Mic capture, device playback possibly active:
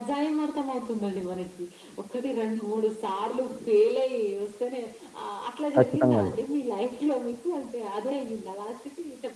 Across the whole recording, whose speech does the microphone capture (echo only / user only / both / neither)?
both